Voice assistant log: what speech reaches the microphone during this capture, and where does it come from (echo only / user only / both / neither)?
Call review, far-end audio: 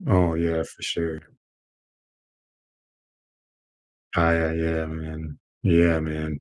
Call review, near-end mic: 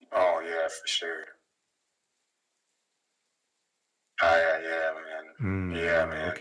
both